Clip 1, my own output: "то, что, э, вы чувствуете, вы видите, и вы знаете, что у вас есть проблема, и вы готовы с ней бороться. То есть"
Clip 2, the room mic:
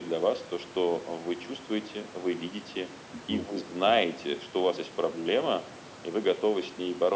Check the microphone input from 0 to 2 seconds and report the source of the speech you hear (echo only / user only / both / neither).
echo only